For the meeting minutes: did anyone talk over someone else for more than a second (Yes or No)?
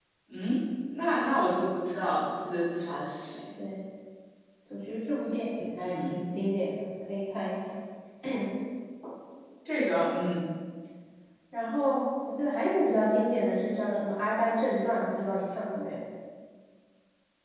No